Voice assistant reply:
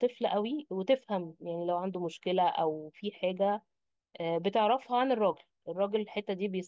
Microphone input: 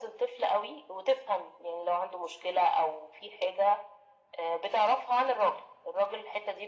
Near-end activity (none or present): none